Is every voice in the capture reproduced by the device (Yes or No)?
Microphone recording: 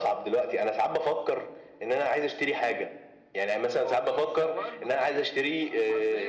No